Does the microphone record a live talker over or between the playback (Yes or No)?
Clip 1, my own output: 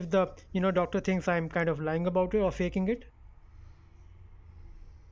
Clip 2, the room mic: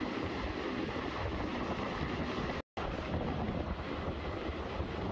No